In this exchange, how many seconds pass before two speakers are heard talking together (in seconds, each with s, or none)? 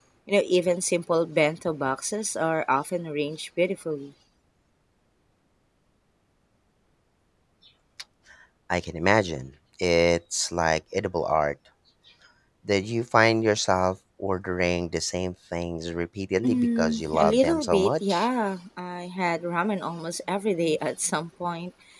16.4 s